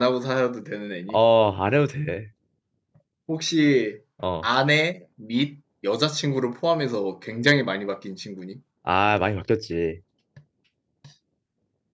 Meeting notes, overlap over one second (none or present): none